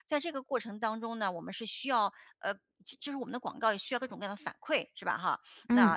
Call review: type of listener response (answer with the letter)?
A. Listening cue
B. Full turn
A